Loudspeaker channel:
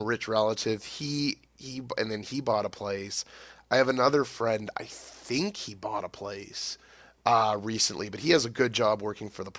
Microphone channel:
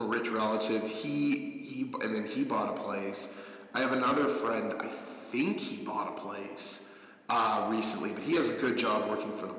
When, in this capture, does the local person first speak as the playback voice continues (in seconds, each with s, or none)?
none